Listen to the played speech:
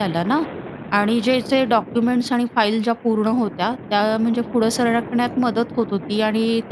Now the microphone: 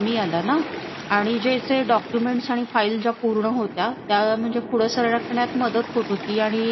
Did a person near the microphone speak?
No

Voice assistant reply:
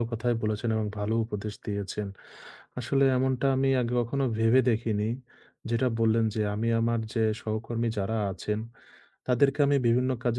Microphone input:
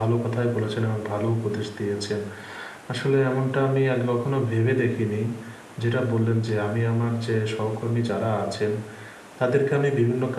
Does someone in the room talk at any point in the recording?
No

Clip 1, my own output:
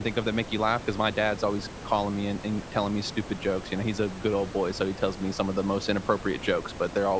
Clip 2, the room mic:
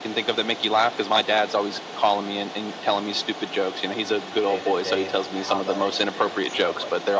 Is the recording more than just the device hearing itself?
Yes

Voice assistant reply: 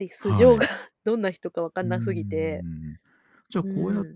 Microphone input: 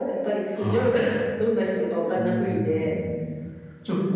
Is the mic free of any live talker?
Yes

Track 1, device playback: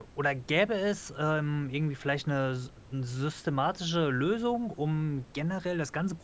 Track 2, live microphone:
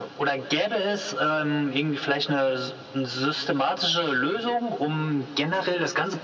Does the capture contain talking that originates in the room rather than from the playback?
No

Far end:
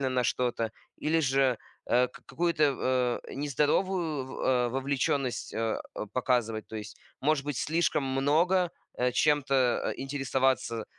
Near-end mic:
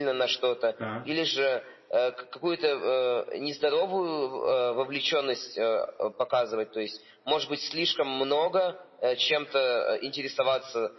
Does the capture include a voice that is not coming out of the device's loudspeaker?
Yes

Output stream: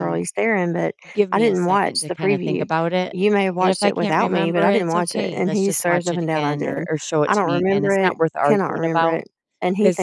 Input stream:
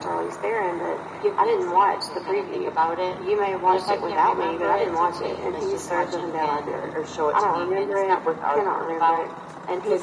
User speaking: No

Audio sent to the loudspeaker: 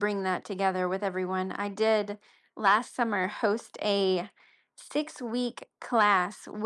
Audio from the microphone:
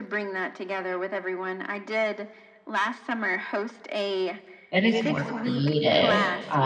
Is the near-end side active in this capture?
Yes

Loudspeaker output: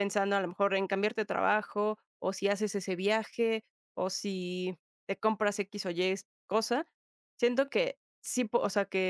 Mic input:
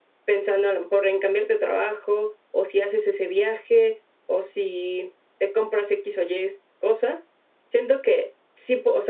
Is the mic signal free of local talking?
Yes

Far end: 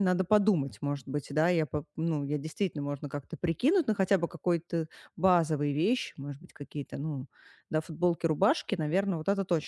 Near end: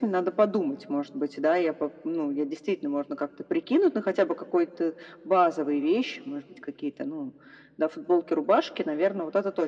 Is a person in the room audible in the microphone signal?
No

